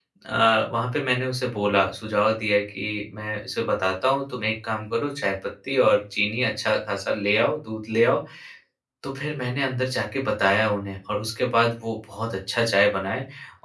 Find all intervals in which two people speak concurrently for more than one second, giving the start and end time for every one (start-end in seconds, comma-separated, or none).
none